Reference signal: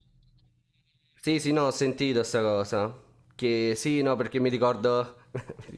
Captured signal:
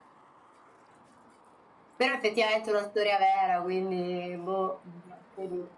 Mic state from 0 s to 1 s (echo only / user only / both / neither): neither